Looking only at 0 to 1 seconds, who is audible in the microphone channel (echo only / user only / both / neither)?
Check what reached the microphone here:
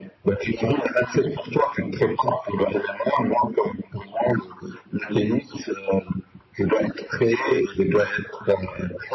echo only